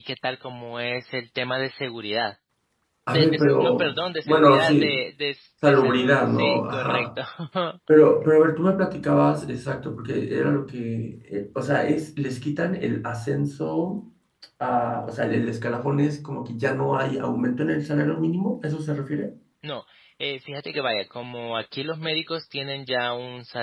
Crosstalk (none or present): present